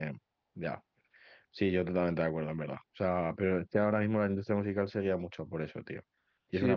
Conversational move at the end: taking over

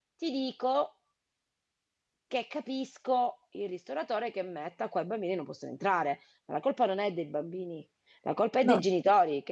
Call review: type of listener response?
listening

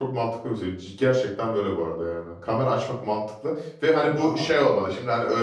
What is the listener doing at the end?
listening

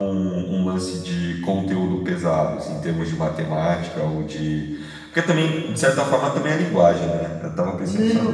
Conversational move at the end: taking over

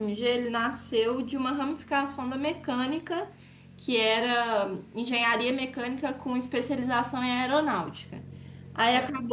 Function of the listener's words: listening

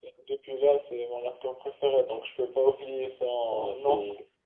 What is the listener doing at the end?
taking over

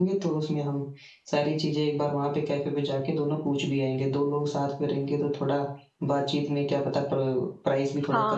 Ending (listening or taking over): taking over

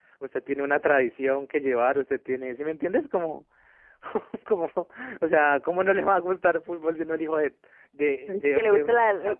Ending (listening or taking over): taking over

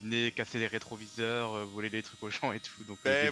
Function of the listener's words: taking over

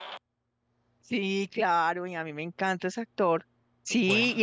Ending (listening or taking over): listening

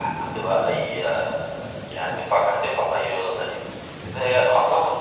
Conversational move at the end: listening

